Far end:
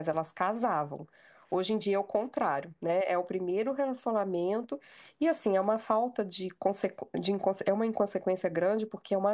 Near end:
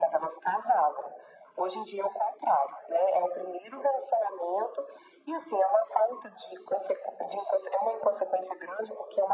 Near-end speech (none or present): none